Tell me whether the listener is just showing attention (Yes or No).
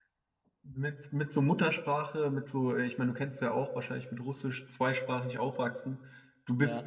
Yes